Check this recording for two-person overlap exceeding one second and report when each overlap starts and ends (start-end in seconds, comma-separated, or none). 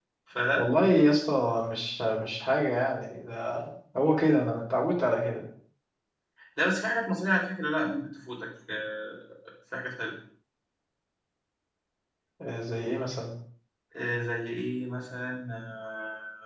none